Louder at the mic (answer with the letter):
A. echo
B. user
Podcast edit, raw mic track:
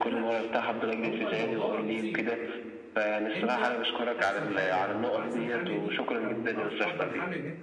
A